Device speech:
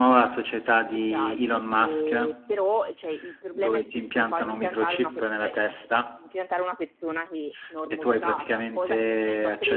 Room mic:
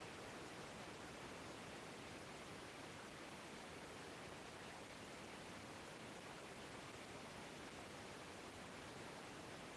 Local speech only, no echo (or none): none